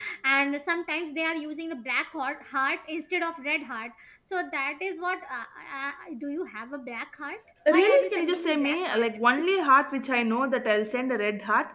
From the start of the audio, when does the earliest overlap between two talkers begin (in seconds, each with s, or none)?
7.7 s